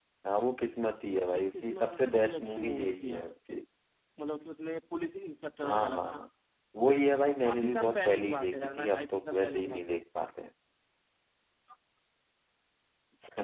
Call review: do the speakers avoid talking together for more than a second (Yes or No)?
No